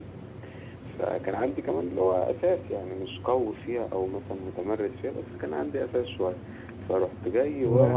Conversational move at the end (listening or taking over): listening